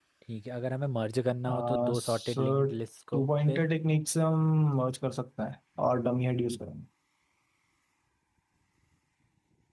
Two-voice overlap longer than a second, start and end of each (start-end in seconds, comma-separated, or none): 1.5-2.7